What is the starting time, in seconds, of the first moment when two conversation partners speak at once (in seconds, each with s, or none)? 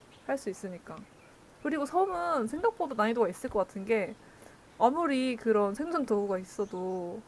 none